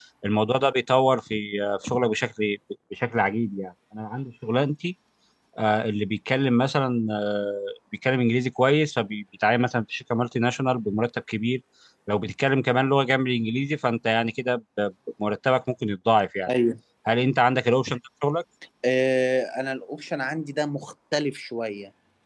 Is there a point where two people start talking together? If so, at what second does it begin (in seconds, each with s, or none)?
none